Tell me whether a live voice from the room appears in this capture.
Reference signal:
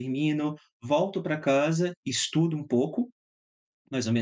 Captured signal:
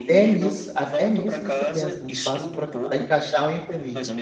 Yes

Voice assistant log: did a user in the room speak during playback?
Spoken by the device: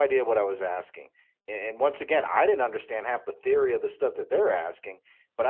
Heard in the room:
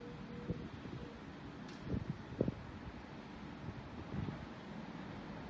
No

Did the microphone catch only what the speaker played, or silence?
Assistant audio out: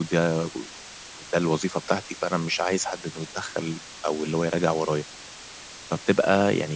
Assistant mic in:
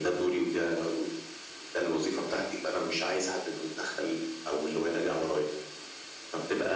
Yes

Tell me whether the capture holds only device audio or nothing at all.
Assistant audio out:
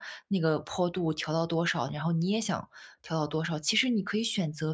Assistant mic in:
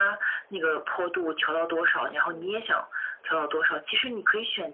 No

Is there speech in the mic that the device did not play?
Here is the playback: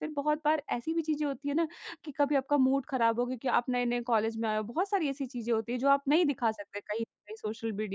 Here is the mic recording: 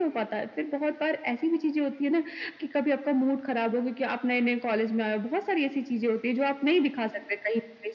No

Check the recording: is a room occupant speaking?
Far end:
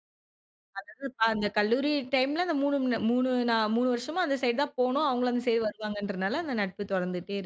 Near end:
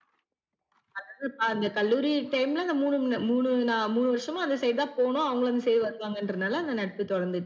No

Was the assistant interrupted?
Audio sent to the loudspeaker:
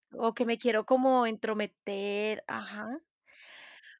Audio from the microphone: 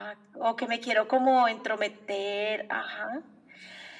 No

